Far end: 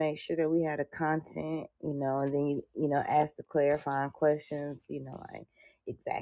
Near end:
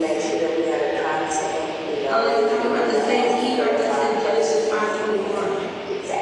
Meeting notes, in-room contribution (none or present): present